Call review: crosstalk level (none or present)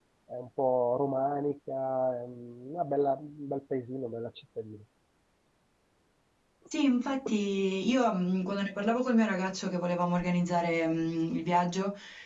none